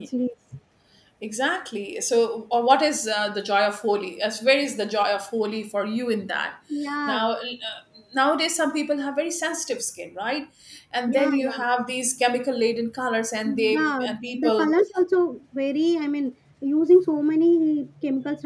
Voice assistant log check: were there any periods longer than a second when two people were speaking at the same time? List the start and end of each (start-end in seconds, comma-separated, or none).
13.4-14.7